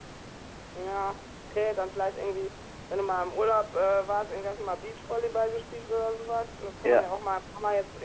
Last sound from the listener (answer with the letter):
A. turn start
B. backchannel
B